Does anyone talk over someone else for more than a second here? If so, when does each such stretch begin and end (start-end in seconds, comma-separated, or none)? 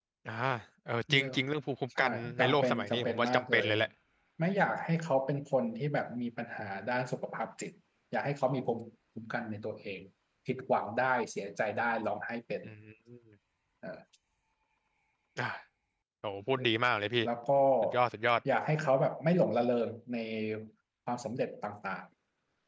2.0-3.7